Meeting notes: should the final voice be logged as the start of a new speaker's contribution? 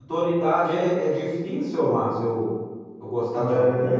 Yes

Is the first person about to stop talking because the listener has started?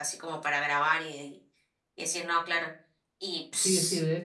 Yes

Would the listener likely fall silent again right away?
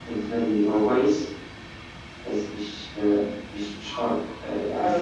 No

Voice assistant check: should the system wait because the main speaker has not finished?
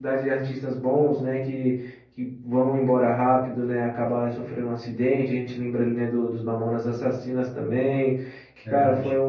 Yes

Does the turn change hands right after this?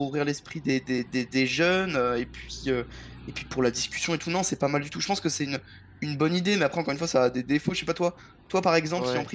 No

